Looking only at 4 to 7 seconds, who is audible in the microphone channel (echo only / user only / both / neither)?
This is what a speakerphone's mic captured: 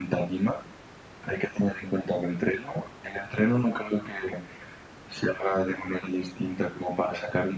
echo only